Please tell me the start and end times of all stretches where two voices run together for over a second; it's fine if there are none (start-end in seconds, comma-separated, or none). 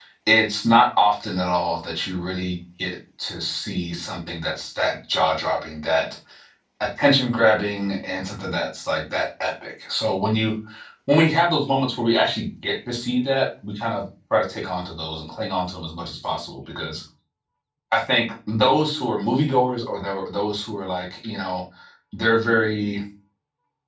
none